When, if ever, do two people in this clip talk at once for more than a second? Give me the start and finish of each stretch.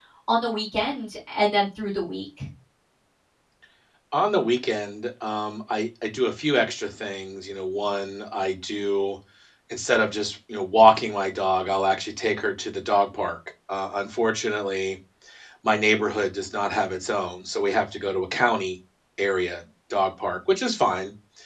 none

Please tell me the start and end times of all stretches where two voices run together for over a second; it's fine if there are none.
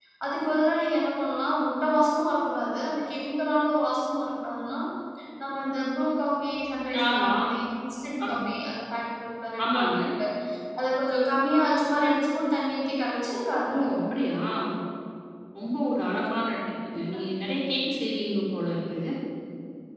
none

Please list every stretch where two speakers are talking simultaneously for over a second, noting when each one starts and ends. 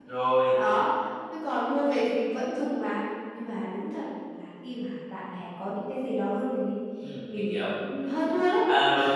none

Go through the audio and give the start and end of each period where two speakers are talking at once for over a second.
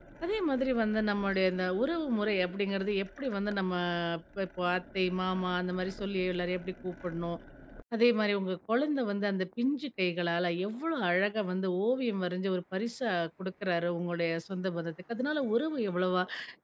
none

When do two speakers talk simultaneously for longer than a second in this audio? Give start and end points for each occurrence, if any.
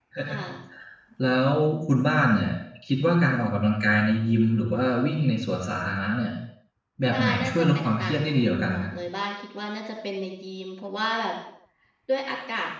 7.1-8.9

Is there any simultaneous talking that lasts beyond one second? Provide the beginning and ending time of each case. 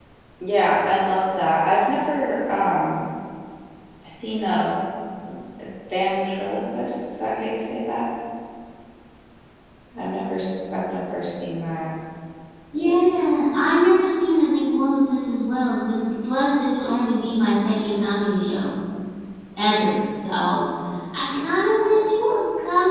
none

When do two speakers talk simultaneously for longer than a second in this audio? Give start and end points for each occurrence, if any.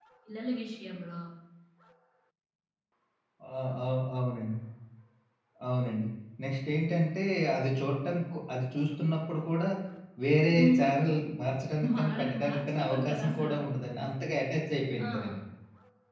11.9-13.6

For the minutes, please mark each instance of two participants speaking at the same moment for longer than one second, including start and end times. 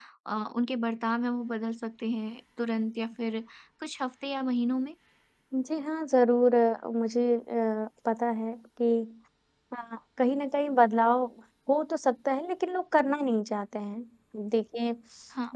none

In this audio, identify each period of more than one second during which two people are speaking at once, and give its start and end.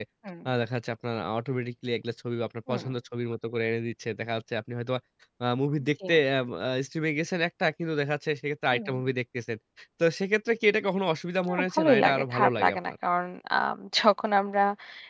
11.5-12.9

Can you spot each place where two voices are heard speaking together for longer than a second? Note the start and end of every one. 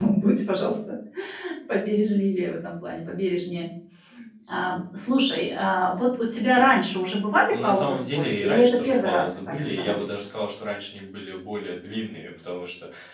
7.5-10.1

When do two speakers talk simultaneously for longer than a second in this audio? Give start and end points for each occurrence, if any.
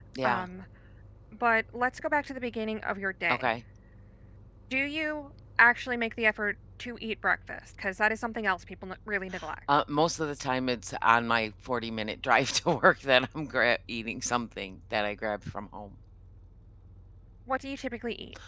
none

